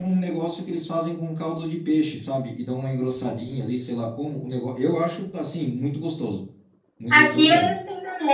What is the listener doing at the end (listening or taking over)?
taking over